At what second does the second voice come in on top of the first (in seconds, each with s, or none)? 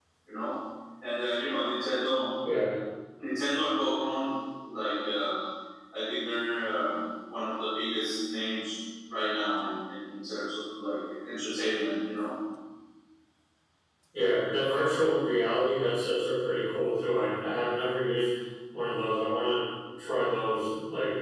none